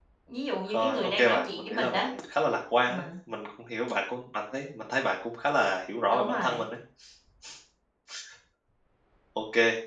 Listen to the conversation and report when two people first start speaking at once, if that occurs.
0.7 s

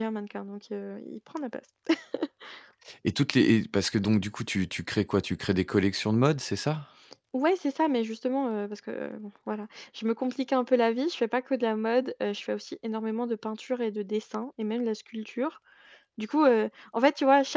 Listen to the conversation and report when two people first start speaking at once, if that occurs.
none

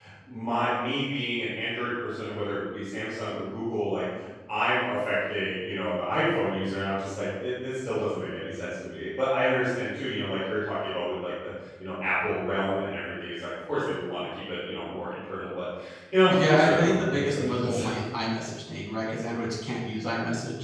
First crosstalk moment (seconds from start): 16.3 s

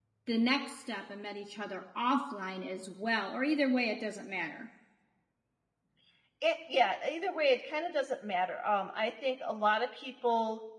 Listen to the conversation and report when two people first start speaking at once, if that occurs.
none

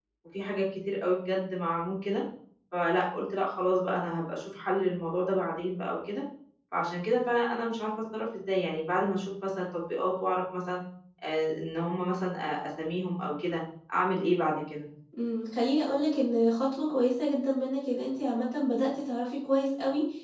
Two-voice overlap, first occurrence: none

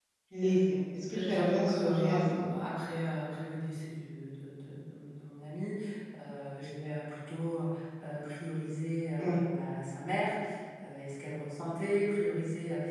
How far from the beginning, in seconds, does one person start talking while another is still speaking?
1.0 s

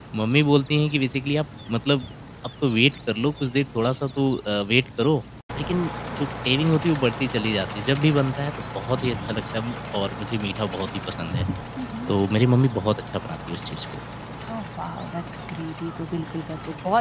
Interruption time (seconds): none

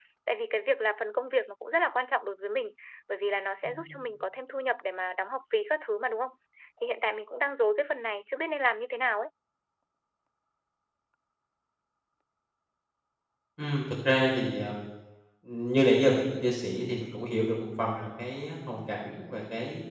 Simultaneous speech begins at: none

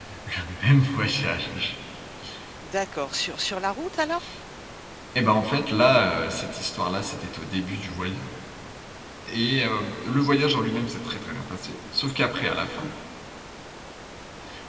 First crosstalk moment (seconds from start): none

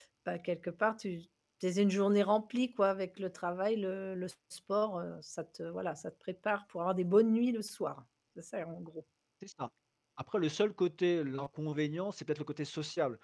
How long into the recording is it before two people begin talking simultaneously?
none

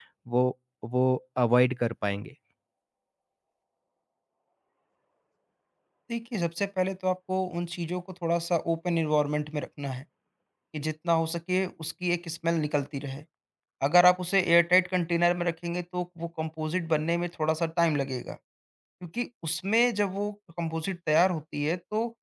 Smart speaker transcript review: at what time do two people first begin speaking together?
none

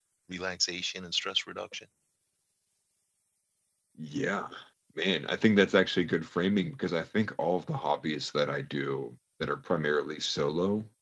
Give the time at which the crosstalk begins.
none

